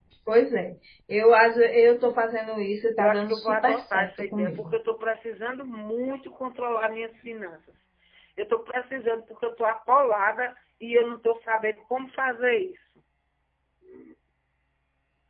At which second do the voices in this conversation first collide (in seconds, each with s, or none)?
3.0 s